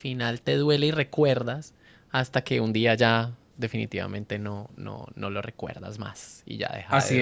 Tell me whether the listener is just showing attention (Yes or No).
No